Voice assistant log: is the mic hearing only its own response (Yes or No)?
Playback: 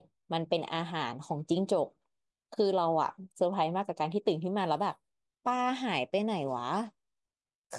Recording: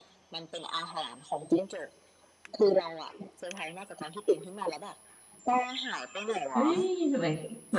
No